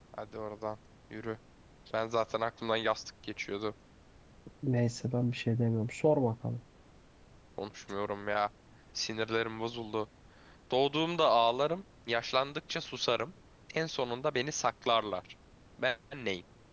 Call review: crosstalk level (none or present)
none